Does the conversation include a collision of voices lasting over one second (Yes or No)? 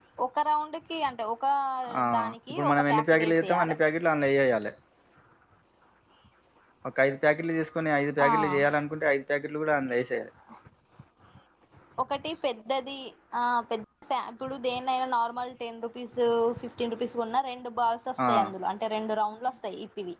Yes